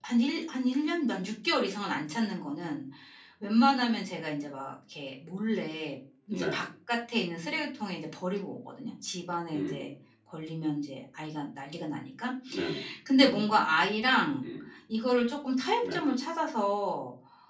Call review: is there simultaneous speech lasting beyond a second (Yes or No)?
No